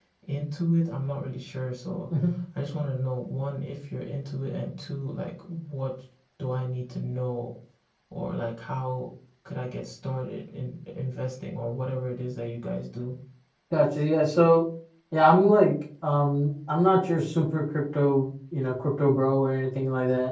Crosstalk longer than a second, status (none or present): none